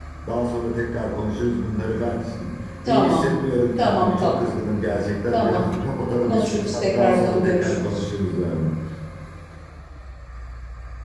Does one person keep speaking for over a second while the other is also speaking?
Yes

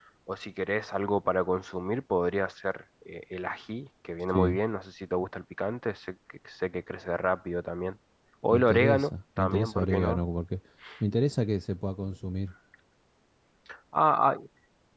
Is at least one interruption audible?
Yes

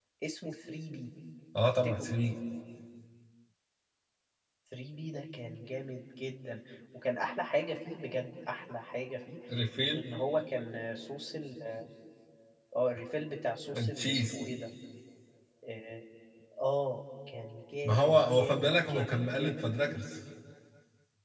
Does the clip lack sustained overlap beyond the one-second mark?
No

